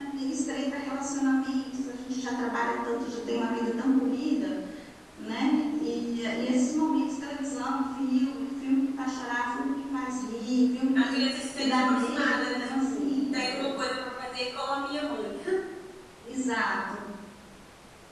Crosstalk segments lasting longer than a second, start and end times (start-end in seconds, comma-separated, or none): 10.9-13.6